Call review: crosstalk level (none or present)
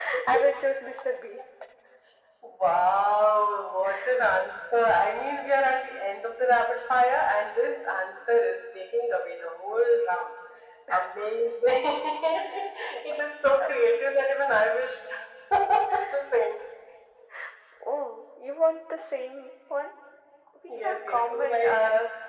present